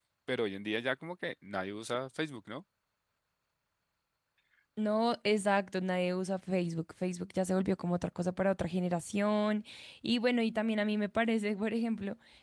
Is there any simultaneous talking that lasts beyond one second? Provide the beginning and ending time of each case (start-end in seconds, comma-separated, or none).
none